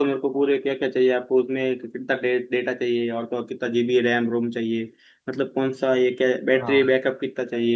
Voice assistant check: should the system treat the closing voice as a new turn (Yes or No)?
No